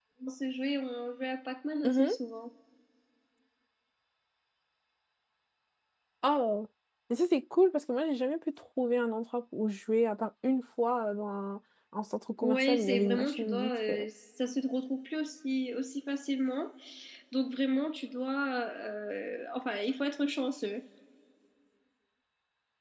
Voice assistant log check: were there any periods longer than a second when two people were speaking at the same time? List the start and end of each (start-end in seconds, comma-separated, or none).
12.4-14.1